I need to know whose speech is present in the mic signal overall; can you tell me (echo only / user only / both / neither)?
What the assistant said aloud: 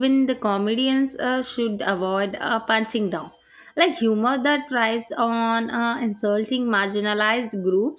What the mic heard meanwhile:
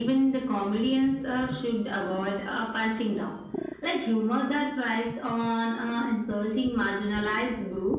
echo only